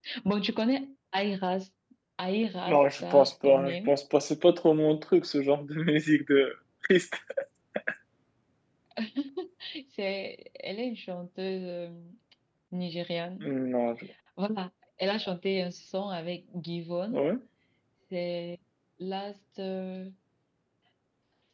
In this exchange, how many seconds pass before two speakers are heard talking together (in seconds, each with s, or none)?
2.7 s